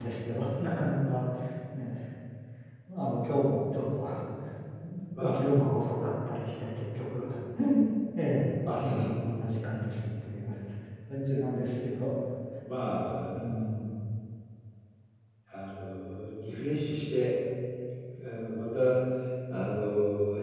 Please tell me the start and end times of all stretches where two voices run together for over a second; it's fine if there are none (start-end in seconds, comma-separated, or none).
none